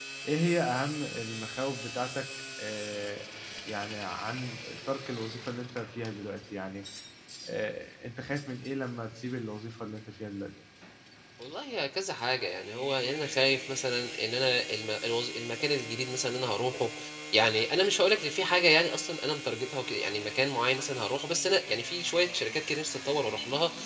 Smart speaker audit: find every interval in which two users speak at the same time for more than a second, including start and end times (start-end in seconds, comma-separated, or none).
none